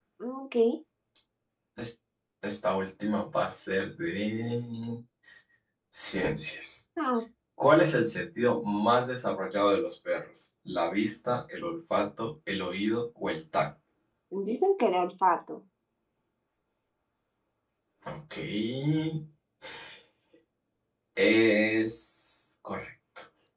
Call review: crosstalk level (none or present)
none